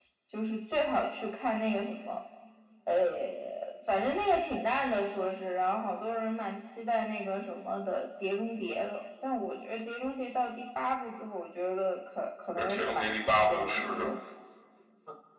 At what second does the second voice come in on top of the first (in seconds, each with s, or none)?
12.6 s